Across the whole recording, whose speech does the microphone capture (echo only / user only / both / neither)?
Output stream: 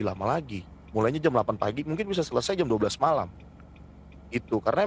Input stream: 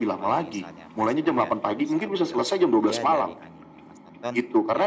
both